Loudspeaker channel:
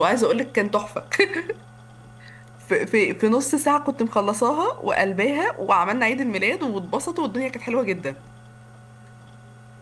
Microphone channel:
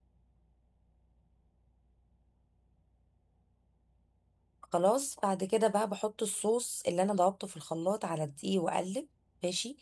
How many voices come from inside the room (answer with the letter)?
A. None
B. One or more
B